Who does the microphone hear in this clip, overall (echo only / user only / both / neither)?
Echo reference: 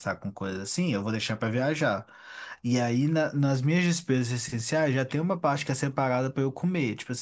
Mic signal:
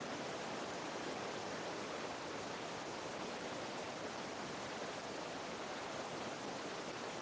neither